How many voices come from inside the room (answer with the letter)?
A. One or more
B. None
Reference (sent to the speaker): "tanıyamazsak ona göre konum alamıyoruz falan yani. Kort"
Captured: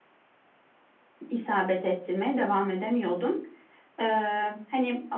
A